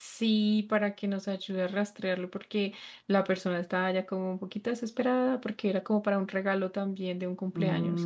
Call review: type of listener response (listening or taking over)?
taking over